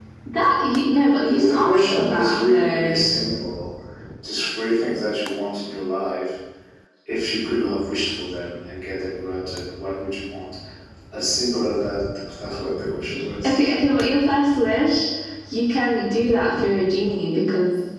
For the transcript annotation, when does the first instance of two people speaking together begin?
1.2 s

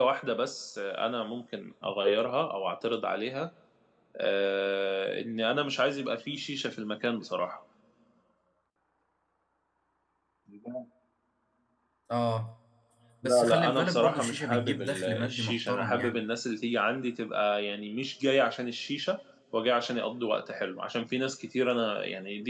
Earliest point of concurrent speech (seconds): 13.2 s

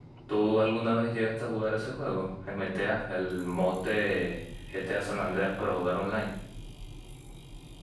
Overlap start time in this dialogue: none

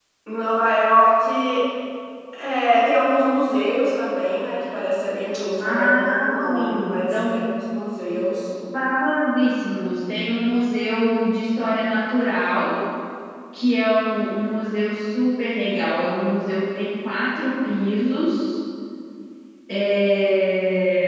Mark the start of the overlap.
5.6 s

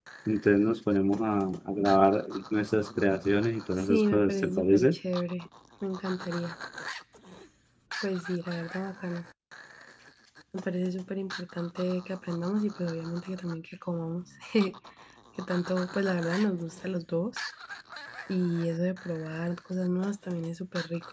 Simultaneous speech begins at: 3.8 s

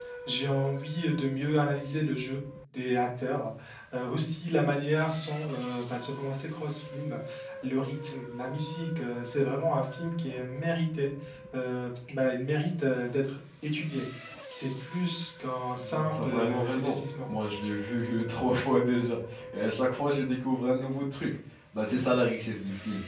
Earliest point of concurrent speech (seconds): 15.8 s

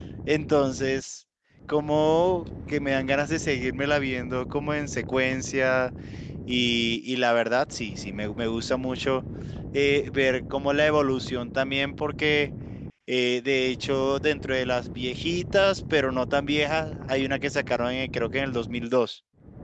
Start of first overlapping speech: none

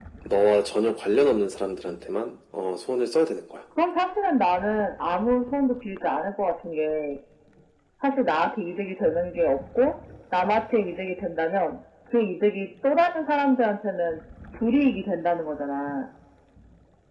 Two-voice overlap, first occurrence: none

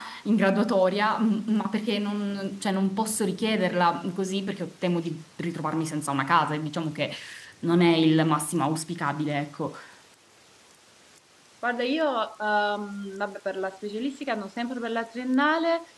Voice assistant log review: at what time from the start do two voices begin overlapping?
none

